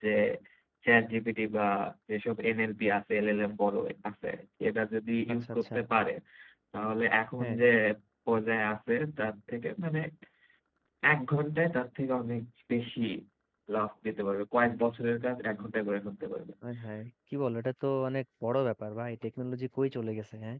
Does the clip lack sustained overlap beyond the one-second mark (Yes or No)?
Yes